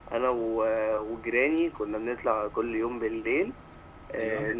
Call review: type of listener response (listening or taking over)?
listening